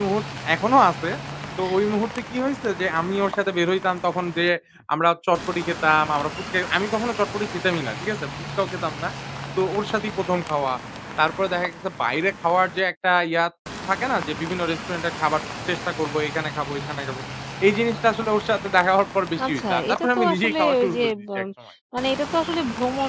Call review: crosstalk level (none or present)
present